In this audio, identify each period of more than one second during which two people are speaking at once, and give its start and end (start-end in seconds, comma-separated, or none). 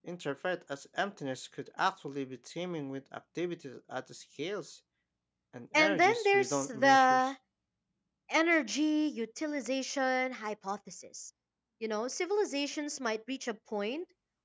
5.7-7.2